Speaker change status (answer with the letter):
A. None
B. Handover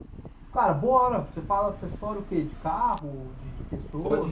B